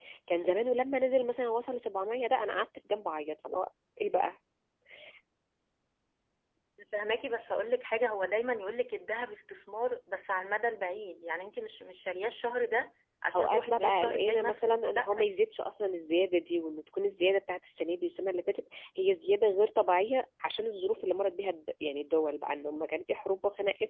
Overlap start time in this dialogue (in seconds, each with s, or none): 13.3 s